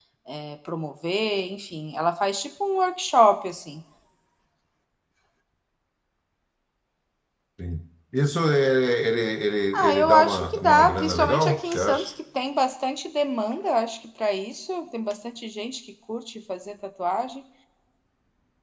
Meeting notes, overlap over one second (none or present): present